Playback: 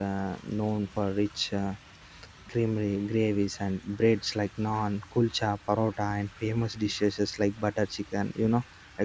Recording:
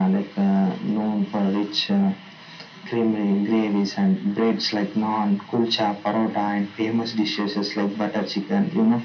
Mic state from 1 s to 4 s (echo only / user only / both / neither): echo only